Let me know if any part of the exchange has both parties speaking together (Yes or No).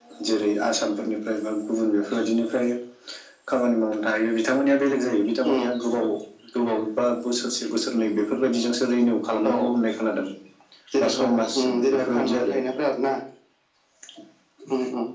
Yes